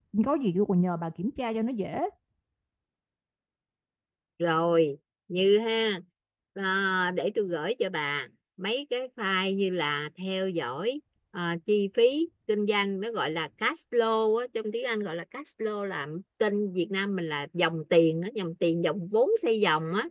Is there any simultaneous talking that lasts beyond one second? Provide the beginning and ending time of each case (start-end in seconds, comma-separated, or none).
none